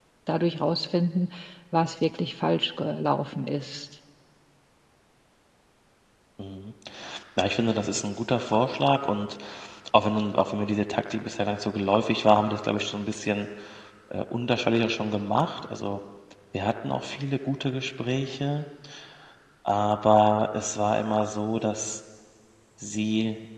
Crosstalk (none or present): none